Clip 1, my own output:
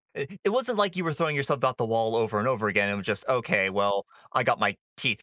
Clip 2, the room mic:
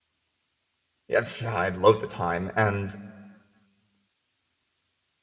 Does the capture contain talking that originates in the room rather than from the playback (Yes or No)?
Yes